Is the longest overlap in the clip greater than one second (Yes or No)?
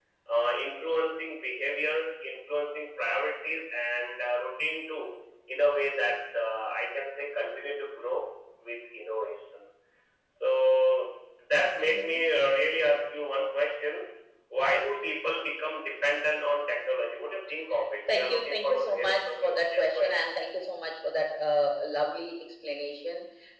Yes